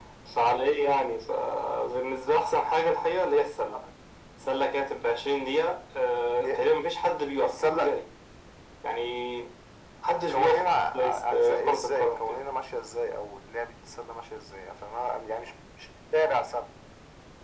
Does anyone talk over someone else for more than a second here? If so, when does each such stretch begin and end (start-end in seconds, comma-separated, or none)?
10.3-12.4